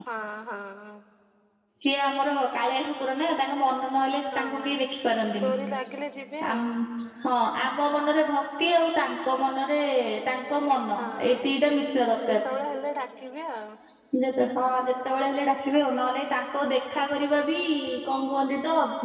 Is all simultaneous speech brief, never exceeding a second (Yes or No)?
Yes